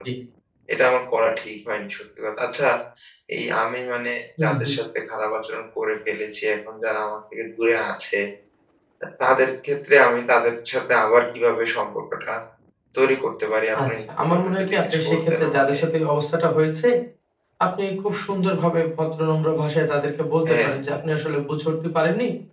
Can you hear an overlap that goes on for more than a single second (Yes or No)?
Yes